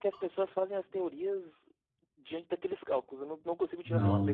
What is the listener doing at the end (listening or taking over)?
taking over